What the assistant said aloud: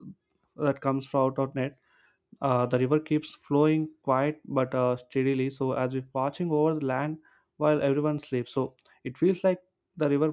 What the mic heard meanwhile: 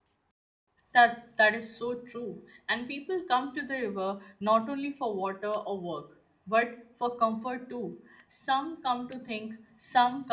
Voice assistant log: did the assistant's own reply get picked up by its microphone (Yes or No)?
No